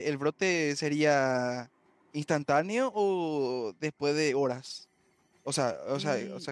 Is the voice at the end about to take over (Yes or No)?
No